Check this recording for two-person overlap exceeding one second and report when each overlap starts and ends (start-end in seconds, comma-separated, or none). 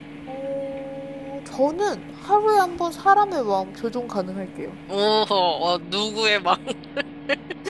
none